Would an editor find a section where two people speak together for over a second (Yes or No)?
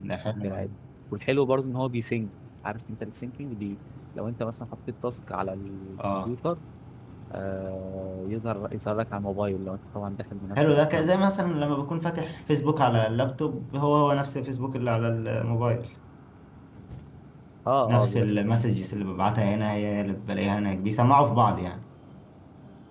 Yes